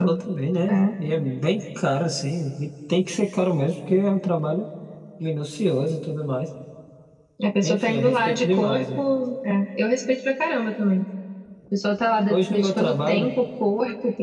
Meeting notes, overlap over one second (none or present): present